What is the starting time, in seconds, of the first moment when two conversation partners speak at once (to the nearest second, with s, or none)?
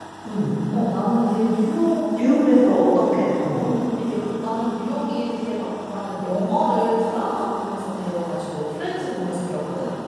none